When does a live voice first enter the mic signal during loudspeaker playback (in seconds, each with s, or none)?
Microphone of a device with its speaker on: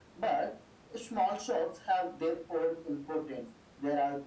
none